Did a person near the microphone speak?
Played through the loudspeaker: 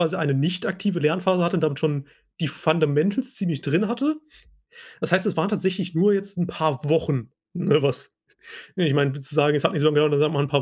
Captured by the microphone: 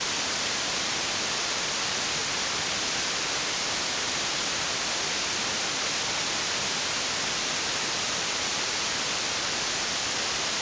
No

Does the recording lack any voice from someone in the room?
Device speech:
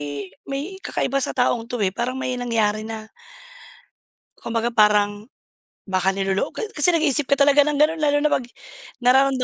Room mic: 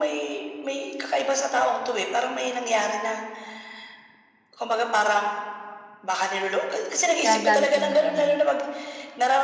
No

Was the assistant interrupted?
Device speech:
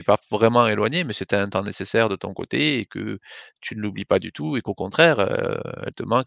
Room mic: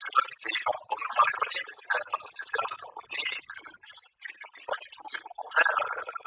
No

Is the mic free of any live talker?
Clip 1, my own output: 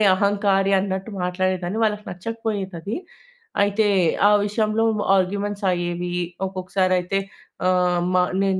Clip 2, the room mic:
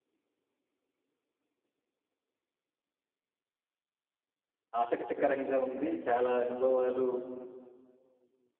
No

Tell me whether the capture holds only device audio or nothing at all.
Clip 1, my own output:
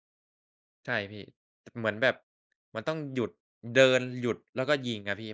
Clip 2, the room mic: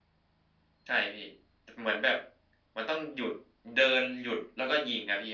Yes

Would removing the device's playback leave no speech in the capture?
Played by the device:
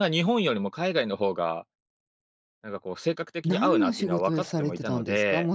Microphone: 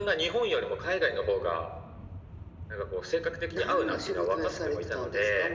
Yes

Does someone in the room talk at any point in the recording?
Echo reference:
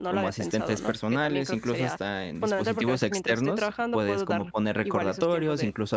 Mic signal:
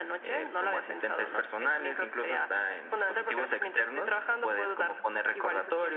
No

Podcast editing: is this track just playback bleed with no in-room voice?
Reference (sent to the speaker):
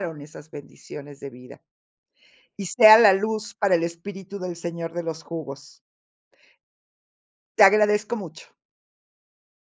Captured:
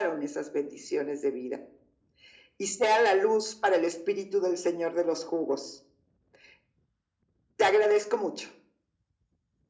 Yes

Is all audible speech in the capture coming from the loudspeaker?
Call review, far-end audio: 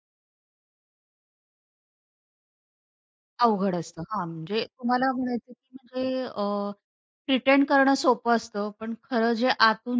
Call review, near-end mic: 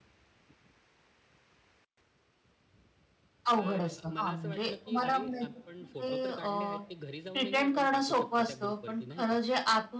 No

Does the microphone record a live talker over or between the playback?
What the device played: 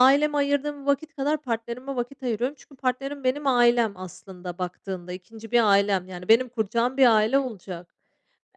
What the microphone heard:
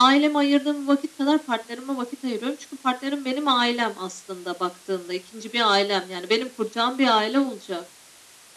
No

